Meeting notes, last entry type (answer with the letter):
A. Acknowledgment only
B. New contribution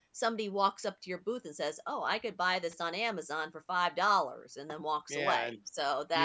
B